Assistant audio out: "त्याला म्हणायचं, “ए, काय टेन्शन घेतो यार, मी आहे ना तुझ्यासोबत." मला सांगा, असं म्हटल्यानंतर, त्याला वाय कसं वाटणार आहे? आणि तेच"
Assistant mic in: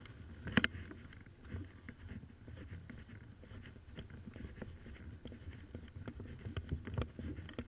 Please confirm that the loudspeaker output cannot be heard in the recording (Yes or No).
Yes